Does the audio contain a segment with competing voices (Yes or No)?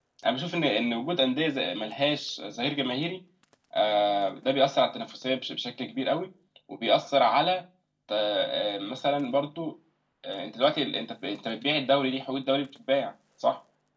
No